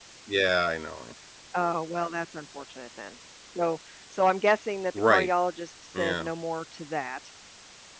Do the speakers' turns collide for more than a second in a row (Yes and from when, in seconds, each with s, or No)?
No